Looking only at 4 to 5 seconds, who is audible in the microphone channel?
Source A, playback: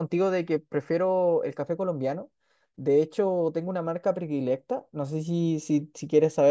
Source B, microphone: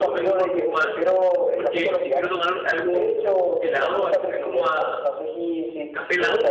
both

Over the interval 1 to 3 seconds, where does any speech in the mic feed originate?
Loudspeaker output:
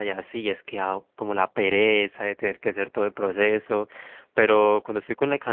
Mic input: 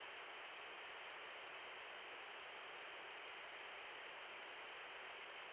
neither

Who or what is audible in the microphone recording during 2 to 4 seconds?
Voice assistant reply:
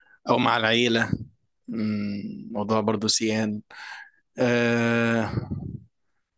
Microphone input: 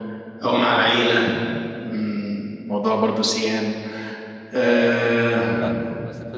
echo only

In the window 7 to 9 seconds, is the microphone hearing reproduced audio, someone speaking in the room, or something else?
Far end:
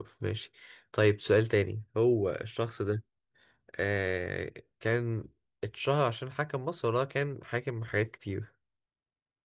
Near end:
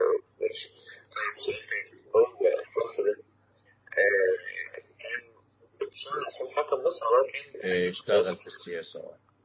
both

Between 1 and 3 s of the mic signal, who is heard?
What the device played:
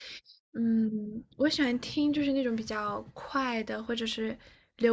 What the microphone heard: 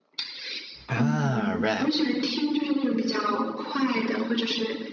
both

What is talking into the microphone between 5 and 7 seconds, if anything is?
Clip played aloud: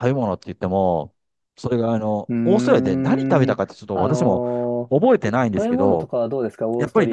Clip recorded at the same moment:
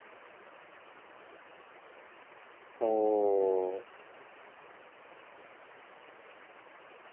neither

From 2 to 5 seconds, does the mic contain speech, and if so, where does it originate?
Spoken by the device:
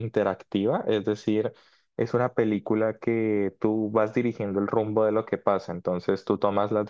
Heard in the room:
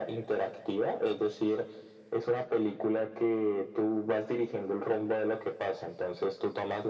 echo only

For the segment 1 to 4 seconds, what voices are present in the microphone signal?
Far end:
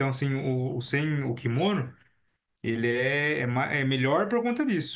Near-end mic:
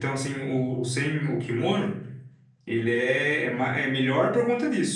echo only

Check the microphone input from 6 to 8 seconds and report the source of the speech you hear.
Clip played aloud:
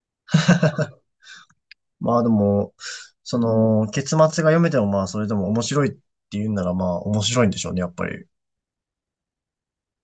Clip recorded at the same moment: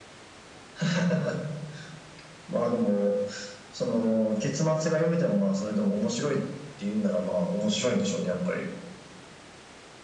echo only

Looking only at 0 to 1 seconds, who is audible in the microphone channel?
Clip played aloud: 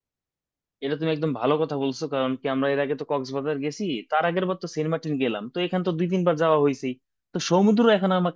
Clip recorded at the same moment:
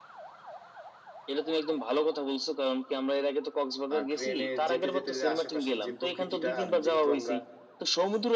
neither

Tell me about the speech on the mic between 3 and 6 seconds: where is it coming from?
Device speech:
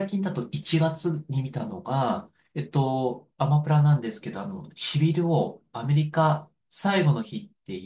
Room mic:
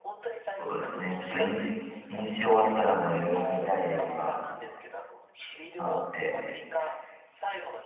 both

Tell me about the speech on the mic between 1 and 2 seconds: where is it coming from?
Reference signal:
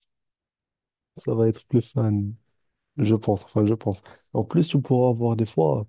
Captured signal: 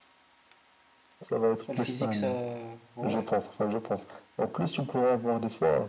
both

